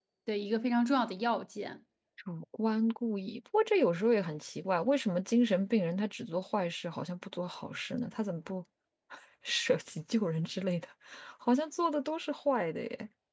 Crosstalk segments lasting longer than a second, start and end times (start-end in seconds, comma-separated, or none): none